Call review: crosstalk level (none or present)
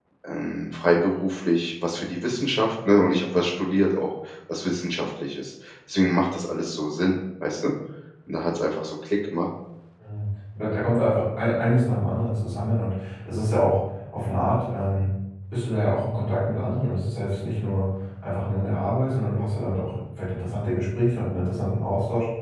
none